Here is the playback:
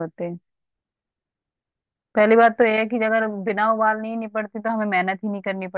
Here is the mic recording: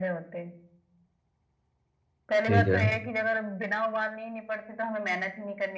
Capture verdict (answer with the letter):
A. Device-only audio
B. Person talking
B